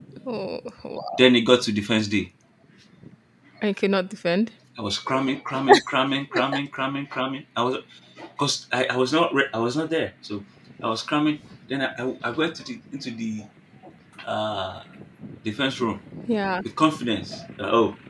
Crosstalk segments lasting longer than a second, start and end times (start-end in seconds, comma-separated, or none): none